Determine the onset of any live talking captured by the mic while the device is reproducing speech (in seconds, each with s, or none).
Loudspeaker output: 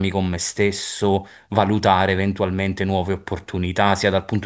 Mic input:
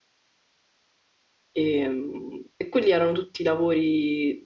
1.5 s